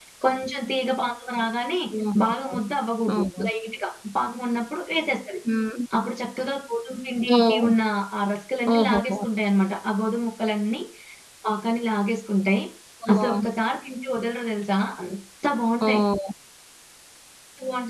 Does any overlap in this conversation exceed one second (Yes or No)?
No